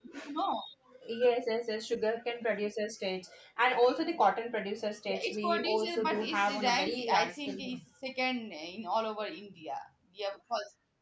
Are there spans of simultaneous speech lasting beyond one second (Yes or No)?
Yes